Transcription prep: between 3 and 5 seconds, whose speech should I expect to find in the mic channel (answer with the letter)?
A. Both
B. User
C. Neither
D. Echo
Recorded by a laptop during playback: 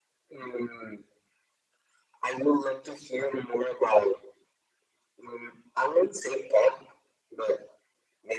D